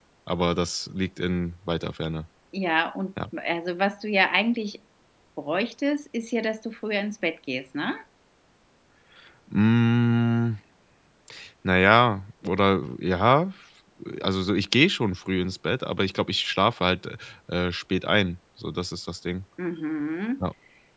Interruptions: none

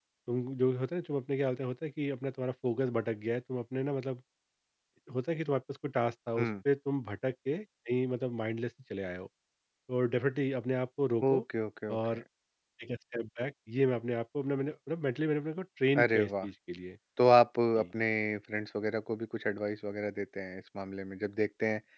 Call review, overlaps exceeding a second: none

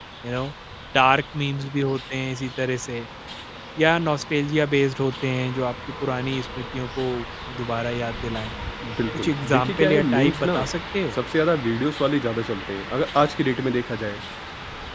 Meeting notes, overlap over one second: present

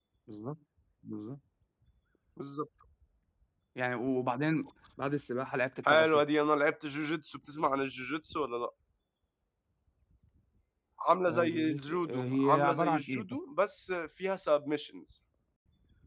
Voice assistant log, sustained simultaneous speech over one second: present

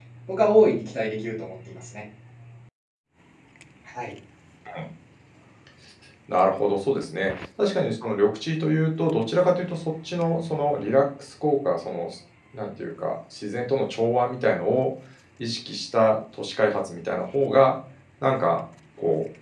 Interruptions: none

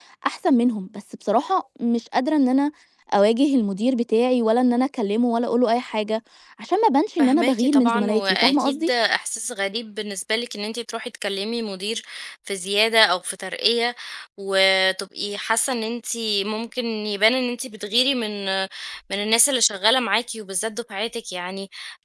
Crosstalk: present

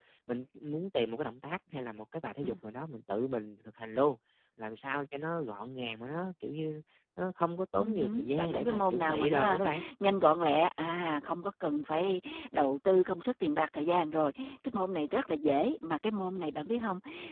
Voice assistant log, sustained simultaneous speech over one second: present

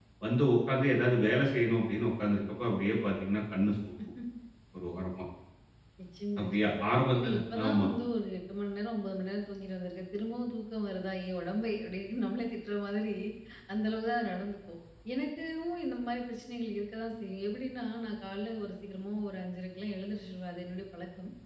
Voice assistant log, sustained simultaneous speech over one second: present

